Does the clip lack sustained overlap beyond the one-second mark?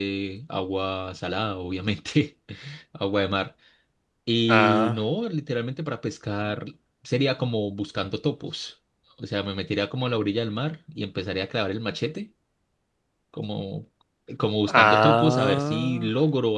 No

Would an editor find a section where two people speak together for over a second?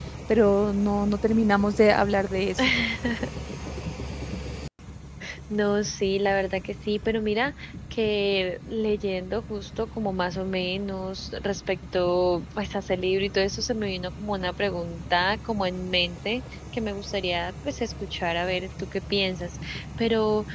No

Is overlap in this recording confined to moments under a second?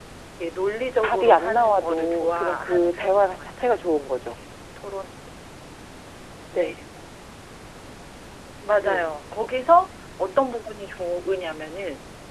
No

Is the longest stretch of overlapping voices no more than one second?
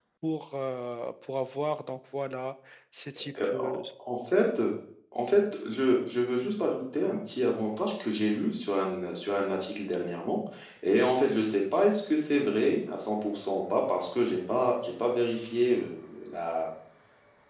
Yes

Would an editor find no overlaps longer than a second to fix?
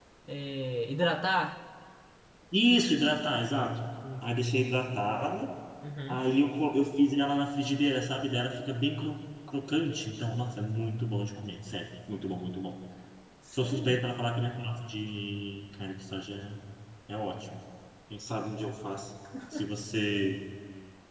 Yes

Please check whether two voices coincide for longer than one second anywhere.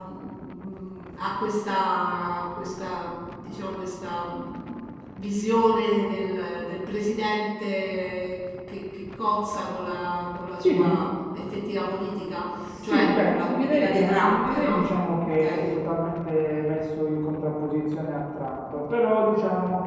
Yes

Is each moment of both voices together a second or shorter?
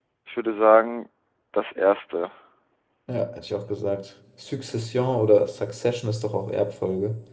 Yes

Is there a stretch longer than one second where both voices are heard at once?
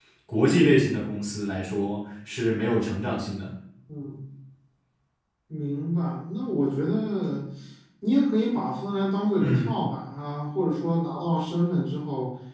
No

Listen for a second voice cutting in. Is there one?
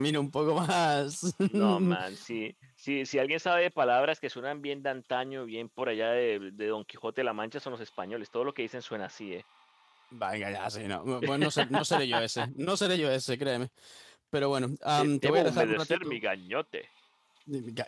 Yes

